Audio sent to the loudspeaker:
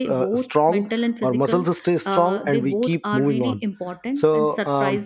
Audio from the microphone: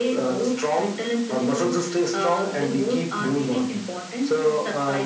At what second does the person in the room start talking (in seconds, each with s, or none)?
none